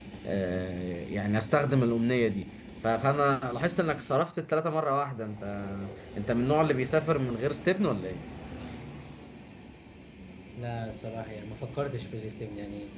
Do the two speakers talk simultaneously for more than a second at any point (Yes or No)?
No